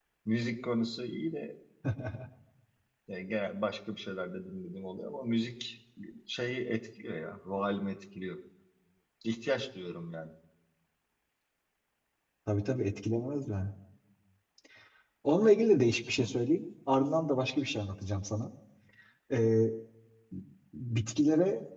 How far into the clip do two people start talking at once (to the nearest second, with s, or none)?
none